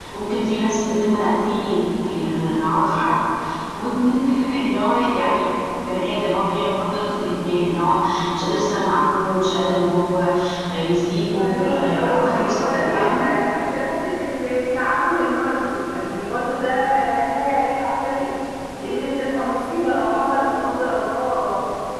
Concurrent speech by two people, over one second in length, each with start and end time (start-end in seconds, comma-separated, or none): 11.4-13.2